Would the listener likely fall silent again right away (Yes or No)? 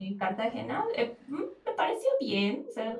No